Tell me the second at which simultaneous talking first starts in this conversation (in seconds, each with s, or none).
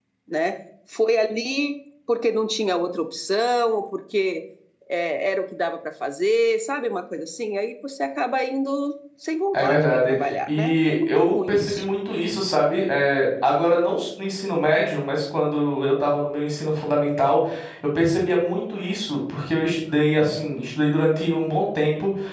9.5 s